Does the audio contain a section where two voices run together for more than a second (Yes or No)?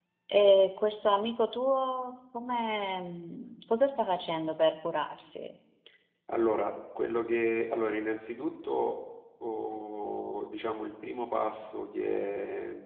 No